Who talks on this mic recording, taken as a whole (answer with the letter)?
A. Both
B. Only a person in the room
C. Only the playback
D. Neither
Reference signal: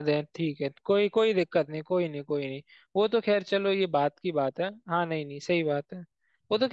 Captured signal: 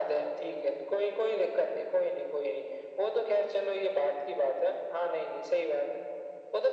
C